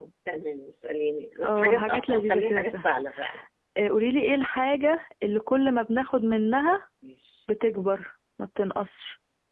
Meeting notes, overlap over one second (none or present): present